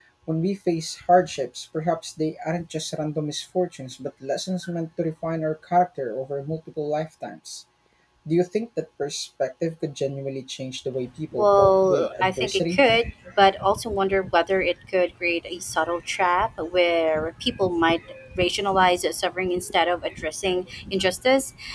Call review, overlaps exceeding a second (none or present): present